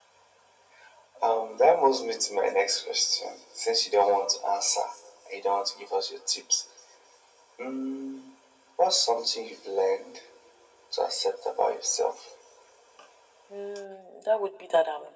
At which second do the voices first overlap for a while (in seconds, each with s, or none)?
none